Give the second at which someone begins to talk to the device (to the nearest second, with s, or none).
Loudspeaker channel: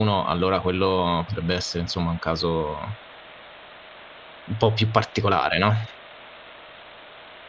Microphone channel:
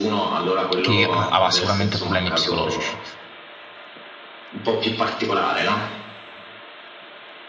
1 s